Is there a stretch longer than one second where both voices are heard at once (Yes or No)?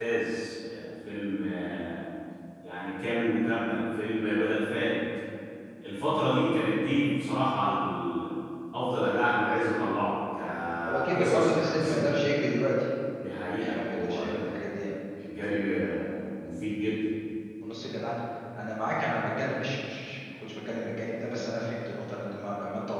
Yes